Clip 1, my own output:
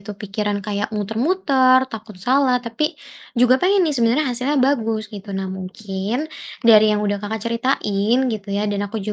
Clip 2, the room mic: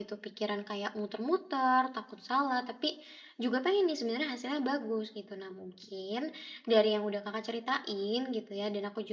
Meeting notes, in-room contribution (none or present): none